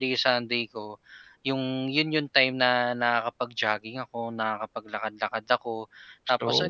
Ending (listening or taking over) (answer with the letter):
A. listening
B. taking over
A